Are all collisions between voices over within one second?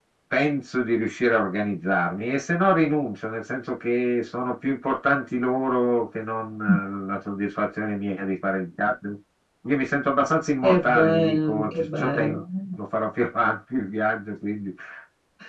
No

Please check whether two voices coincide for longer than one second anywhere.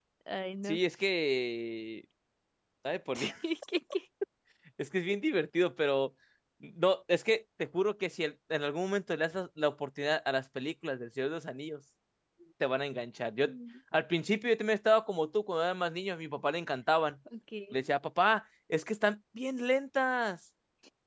No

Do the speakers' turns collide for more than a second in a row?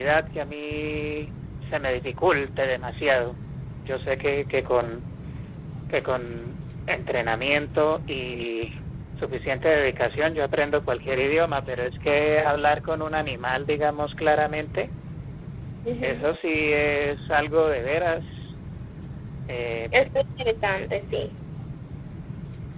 No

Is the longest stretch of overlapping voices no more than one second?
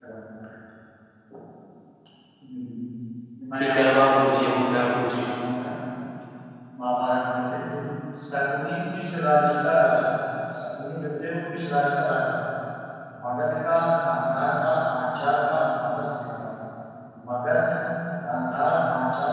No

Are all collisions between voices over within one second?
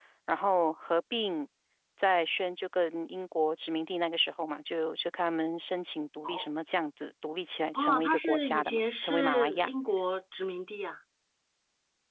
No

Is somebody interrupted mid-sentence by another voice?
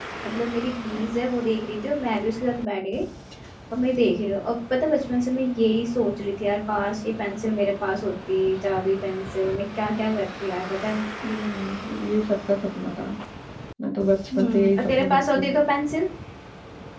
Yes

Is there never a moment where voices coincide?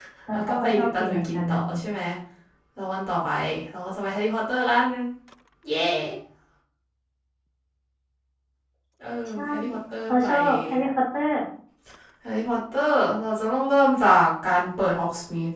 No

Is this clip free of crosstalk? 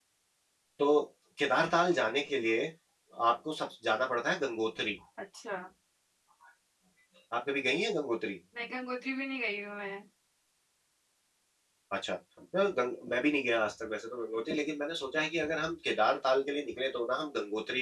Yes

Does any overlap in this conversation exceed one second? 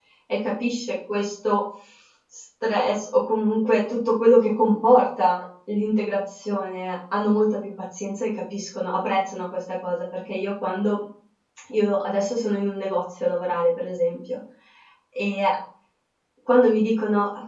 No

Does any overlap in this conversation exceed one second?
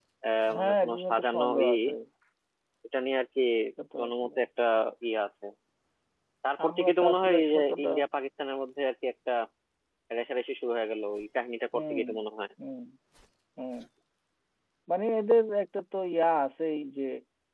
Yes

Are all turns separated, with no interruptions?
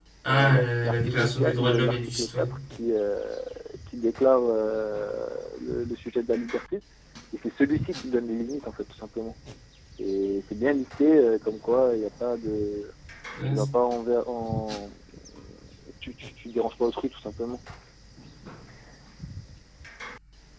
No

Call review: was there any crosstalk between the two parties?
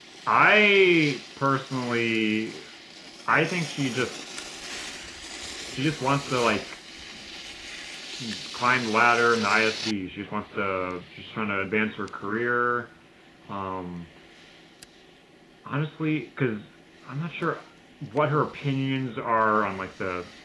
No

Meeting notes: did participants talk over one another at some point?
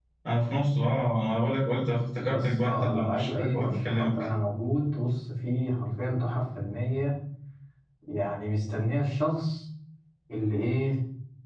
Yes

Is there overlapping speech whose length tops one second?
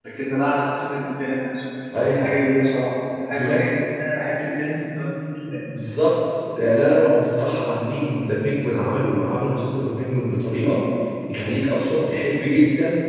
No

